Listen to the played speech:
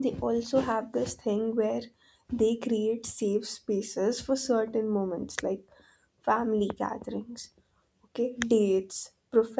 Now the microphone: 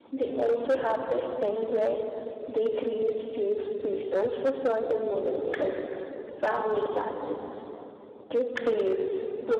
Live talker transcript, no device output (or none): none